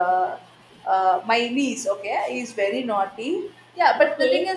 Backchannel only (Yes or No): Yes